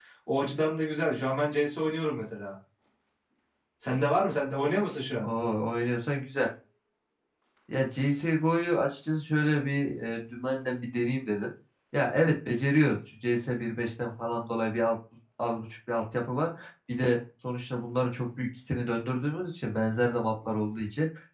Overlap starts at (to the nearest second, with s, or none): none